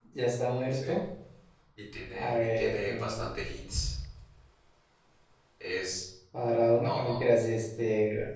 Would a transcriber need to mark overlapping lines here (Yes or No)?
Yes